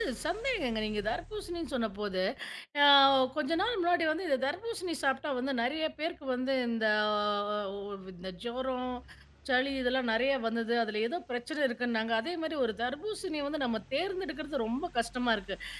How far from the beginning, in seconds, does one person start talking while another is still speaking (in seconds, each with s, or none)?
none